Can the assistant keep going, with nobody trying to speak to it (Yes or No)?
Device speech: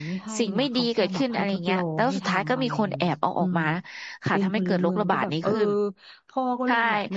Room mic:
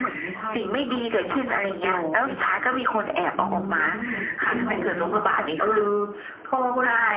No